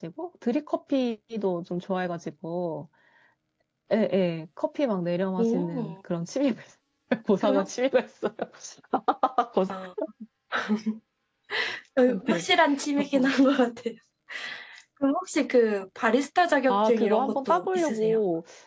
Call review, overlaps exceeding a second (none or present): present